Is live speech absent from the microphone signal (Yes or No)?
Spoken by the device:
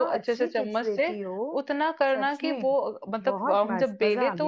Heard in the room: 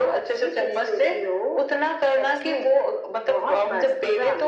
Yes